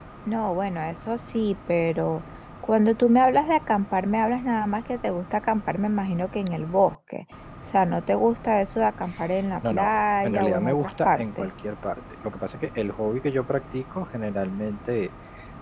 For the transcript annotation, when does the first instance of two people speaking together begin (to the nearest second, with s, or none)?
10 s